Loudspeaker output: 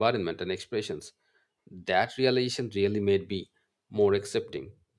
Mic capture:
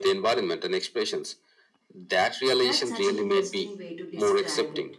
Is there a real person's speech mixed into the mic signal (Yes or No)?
Yes